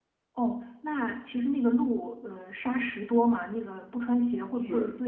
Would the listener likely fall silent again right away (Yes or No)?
No